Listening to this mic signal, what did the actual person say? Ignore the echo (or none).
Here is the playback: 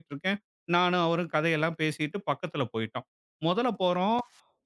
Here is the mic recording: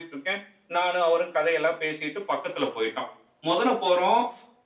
none